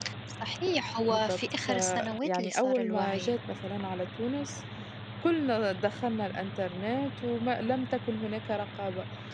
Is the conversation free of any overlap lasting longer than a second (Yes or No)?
No